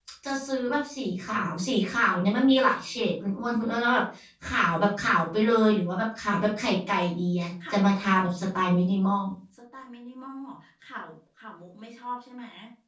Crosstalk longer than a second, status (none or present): none